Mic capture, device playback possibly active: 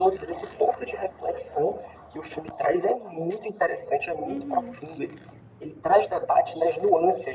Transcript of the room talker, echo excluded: Uhum.

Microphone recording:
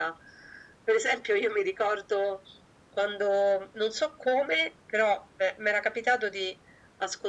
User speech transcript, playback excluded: none

